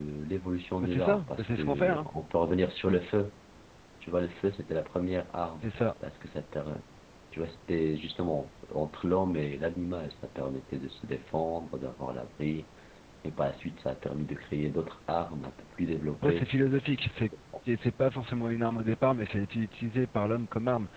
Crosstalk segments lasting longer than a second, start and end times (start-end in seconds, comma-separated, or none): 0.8-2.1